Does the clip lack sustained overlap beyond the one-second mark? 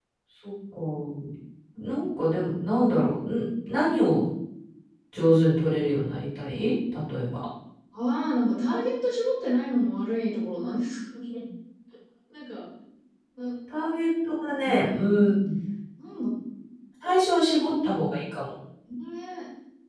Yes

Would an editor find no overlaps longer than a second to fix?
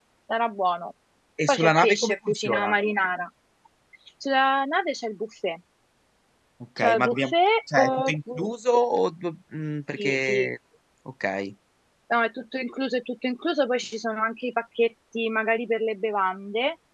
No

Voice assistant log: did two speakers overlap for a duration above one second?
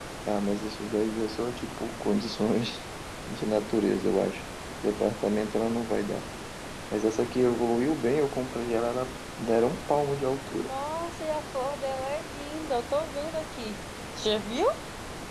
No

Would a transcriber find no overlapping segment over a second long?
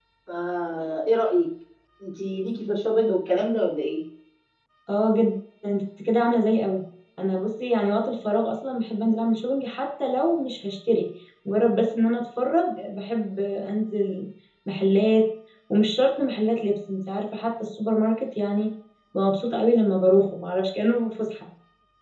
Yes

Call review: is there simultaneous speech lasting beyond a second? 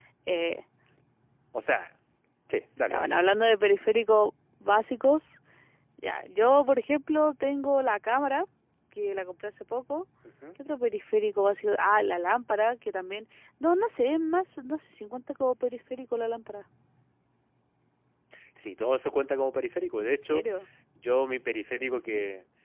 No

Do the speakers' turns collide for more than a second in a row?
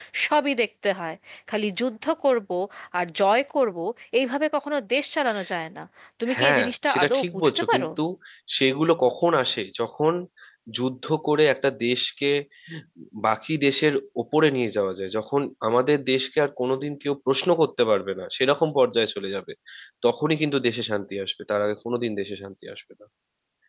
Yes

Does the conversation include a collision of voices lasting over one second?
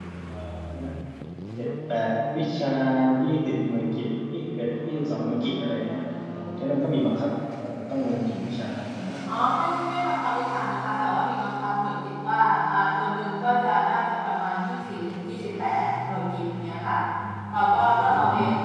No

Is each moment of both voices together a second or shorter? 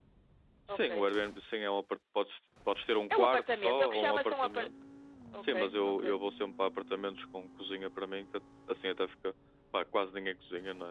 No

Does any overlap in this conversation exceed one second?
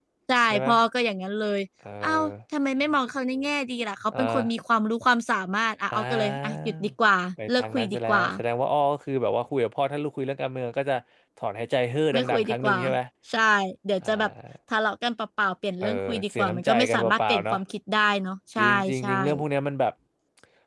Yes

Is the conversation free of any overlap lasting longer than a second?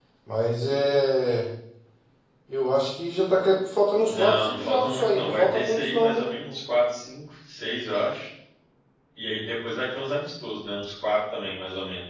No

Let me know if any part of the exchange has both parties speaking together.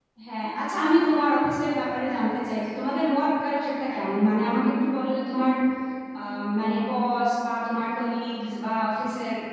No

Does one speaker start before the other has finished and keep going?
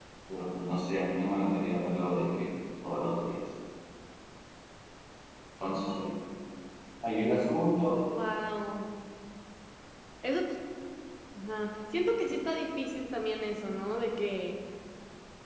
No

